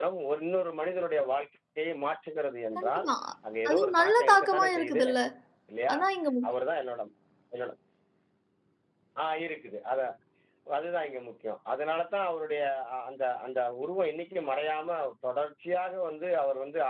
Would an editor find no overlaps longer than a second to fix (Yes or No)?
No